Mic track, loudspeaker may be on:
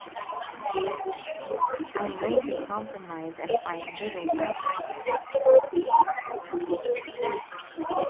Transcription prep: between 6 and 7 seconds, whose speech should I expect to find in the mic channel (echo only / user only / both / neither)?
echo only